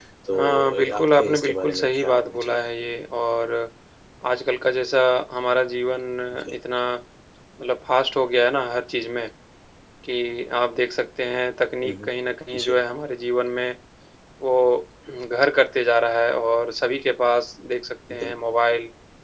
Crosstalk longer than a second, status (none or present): present